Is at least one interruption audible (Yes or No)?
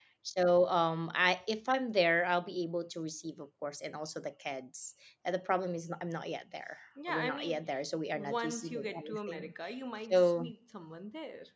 Yes